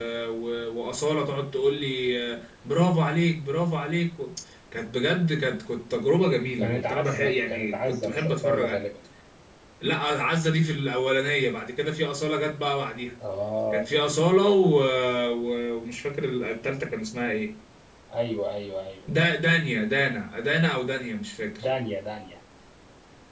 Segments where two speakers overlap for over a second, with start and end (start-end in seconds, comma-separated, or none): 6.6-8.7